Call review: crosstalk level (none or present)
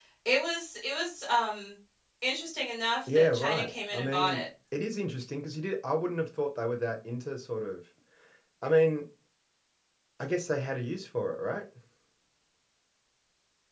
present